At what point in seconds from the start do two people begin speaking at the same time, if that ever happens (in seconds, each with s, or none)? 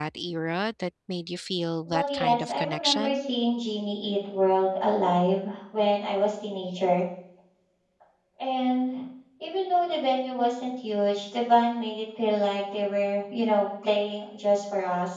1.9 s